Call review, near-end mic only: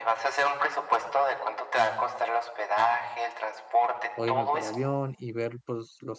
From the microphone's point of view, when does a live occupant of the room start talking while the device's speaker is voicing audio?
4.1 s

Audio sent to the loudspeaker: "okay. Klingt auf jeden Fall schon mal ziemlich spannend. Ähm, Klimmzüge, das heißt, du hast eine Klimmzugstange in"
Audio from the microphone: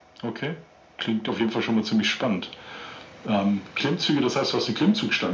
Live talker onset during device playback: none

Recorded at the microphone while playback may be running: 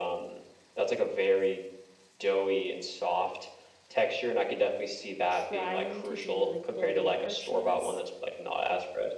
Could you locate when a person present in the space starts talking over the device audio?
5.3 s

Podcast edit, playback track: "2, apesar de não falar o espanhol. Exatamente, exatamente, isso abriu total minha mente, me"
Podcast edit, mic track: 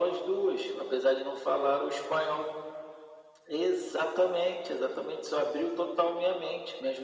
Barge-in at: none

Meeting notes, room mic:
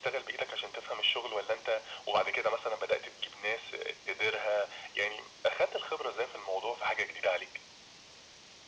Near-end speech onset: none

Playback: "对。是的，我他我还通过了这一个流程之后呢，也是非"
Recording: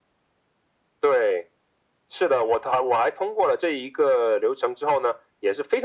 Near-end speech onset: none

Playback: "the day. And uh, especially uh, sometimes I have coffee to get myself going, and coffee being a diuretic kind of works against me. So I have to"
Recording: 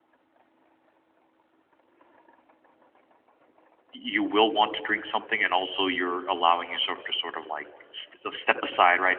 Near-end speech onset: 3.9 s

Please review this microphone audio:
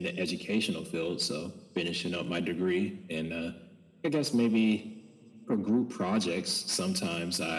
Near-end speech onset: none

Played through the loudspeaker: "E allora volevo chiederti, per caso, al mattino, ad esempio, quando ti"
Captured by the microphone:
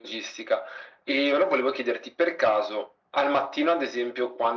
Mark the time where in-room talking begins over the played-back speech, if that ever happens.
none

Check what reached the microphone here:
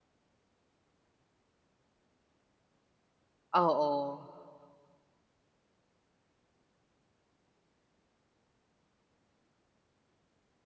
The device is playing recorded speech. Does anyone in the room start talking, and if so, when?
3.5 s

